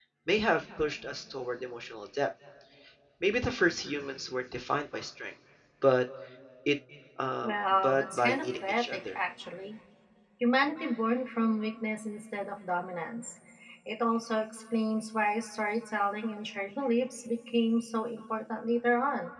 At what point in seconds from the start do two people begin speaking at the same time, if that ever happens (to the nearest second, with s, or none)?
7 s